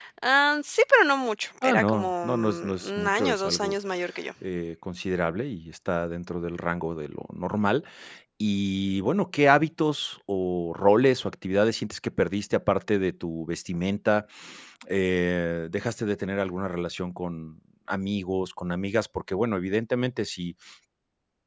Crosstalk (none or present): present